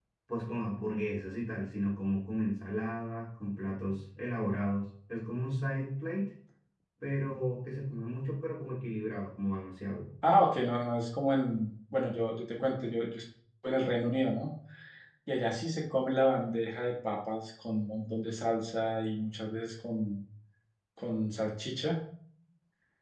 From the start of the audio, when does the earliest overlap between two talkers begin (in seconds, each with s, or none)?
none